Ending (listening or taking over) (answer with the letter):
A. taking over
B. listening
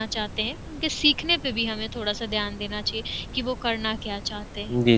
A